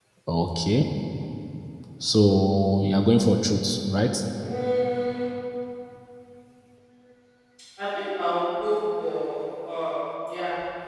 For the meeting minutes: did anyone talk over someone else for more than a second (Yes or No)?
No